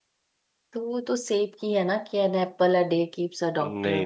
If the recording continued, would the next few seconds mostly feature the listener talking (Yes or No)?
Yes